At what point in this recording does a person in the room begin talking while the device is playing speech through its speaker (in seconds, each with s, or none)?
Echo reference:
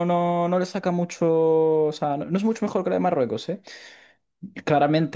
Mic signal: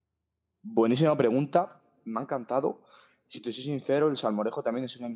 0.6 s